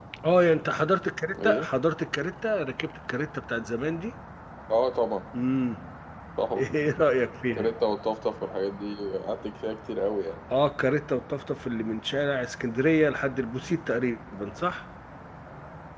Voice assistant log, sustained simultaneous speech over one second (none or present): none